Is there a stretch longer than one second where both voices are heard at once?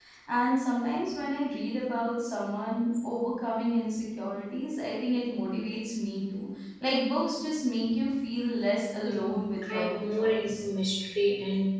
Yes, from 9.0 s

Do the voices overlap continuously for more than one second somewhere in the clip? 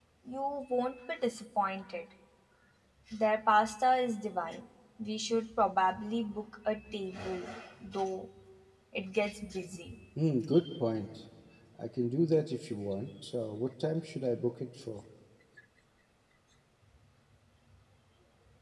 No

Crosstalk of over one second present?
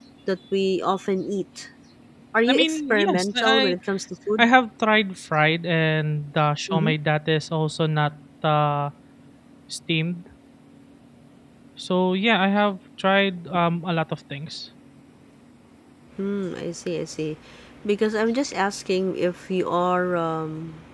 Yes, from 2.5 s

